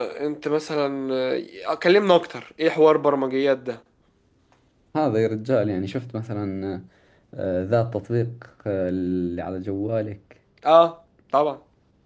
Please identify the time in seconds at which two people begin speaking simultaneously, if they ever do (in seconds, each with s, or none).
none